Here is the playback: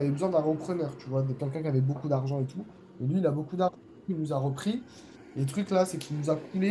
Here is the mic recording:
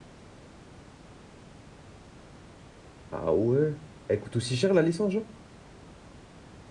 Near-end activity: present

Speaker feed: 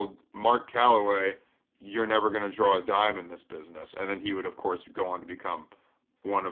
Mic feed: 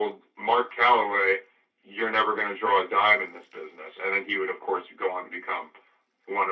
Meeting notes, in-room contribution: none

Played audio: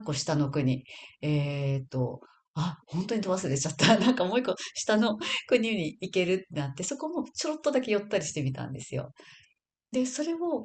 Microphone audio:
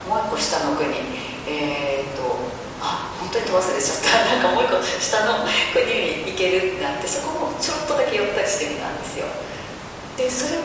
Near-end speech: none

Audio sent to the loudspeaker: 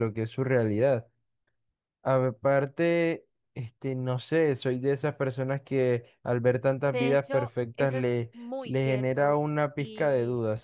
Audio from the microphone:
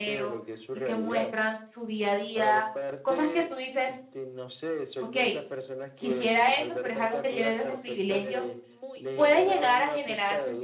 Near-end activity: present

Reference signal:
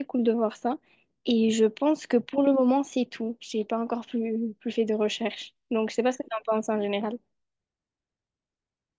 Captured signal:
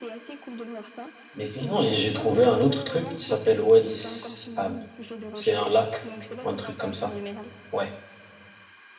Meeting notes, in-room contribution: present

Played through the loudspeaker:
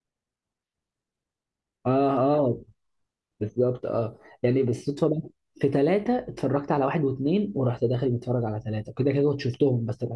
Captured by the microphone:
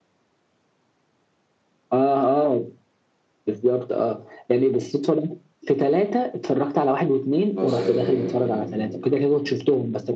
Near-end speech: present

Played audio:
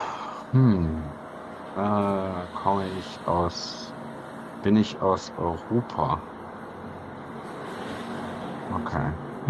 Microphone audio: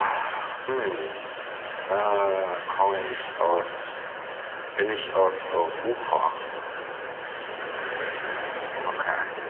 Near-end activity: none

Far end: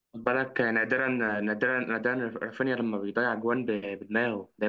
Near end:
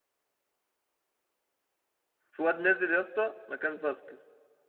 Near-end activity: present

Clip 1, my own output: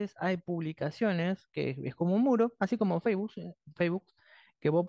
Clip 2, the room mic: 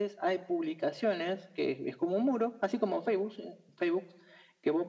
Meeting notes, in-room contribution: none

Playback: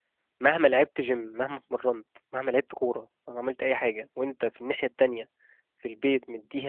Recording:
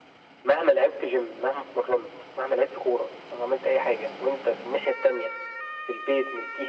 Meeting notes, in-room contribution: none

